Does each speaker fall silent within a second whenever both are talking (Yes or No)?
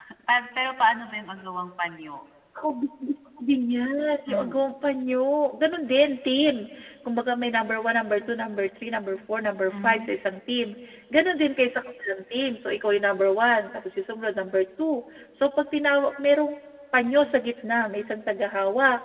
Yes